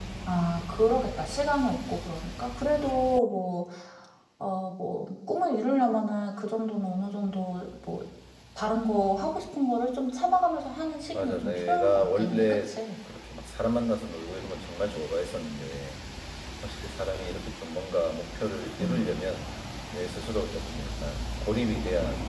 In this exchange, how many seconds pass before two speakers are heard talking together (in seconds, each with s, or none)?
11.1 s